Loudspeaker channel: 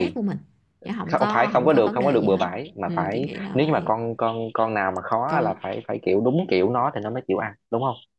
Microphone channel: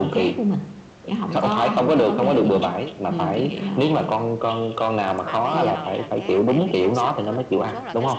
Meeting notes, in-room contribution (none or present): present